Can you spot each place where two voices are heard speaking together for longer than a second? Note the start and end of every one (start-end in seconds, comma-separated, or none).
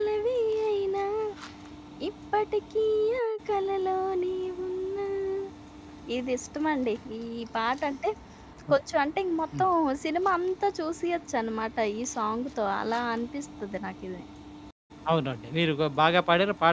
none